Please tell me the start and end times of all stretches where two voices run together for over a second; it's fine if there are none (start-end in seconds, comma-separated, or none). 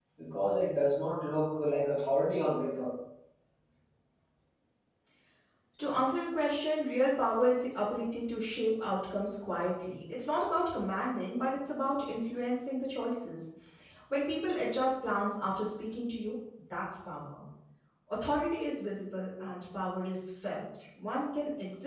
none